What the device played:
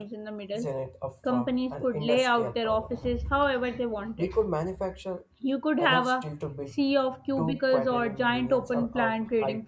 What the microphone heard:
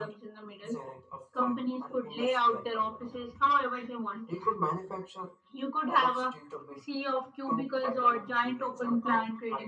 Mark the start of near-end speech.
none

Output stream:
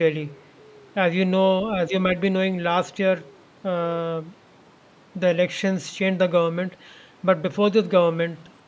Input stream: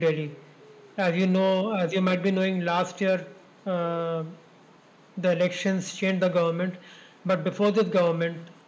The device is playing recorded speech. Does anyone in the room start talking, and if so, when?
none

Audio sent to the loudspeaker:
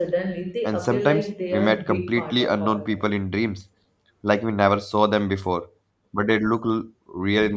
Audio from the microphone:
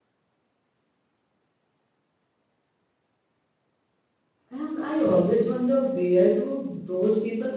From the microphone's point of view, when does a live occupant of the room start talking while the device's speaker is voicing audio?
4.5 s

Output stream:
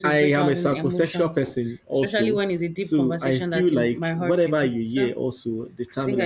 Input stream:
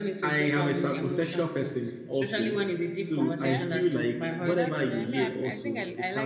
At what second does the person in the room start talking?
3.2 s

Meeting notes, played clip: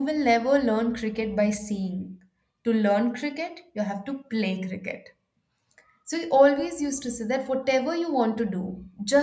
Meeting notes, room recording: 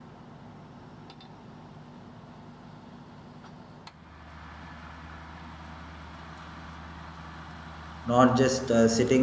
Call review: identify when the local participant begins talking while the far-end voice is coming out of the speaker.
8.1 s

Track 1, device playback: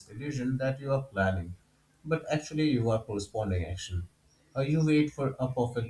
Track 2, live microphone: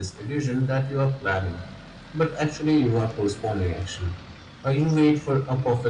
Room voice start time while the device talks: none

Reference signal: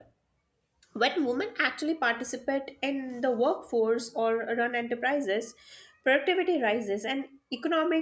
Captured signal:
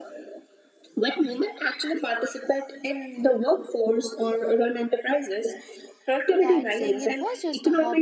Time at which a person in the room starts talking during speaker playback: 6.4 s

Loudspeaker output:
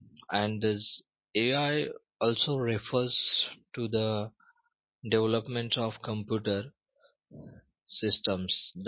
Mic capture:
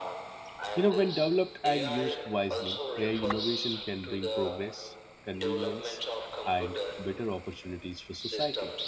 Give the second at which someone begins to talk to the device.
0.7 s

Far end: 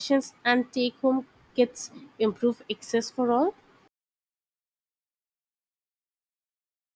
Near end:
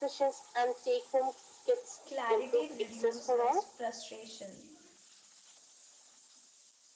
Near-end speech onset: 2.1 s

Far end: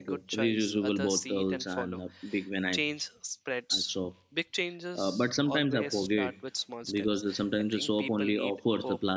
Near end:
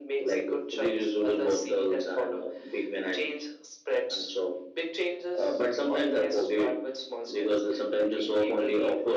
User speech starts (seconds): none

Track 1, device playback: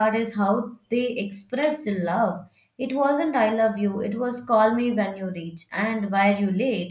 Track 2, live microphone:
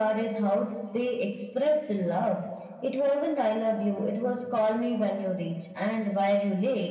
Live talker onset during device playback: none

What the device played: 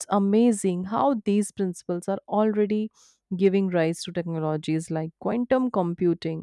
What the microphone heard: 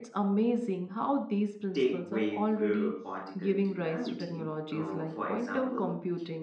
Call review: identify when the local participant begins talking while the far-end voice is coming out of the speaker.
1.7 s

